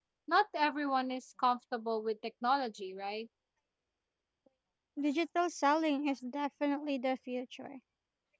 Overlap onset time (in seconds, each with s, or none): none